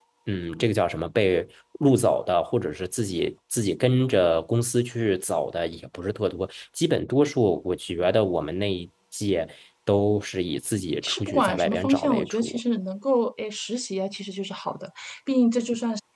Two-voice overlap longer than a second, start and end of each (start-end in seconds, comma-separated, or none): 11.0-12.6